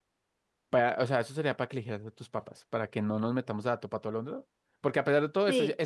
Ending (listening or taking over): listening